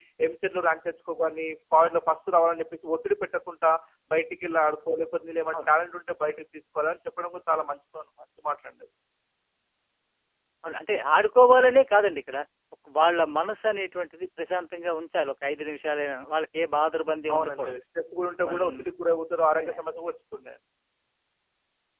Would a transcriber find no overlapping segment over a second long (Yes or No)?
Yes